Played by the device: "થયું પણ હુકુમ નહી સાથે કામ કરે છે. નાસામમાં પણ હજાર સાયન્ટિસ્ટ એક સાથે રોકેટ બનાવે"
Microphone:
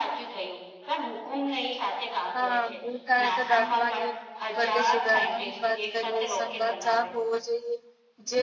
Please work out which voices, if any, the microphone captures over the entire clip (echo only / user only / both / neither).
both